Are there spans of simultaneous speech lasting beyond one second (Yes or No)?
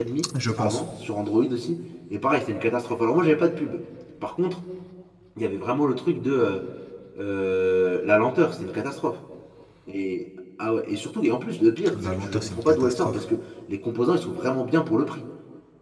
Yes